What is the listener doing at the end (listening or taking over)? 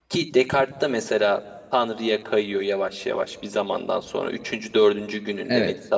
listening